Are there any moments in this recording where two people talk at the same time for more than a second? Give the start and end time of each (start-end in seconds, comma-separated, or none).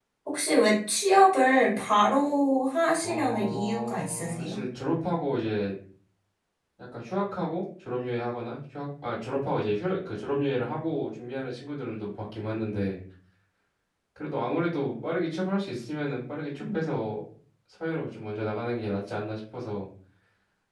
3.0-4.6